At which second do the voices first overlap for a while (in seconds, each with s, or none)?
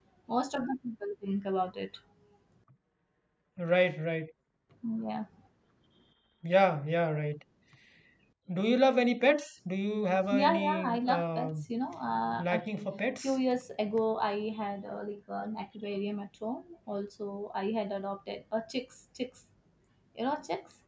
10.3 s